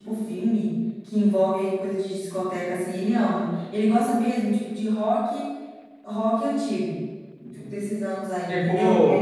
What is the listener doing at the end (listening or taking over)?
taking over